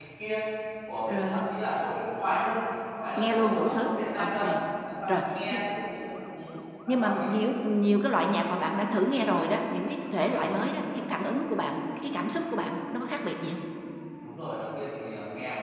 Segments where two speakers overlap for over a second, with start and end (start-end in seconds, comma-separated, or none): 3.2-4.4